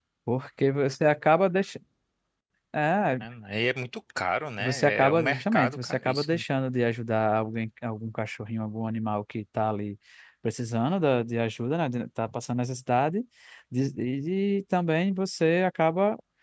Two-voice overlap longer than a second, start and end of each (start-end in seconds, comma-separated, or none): 4.6-6.4